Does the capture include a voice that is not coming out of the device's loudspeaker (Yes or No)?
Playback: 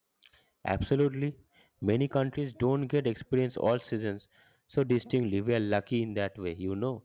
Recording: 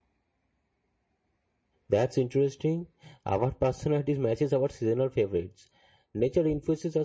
Yes